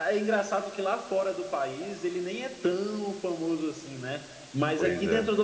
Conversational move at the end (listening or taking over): listening